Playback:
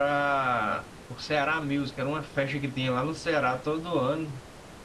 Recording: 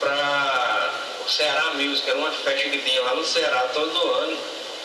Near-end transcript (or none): none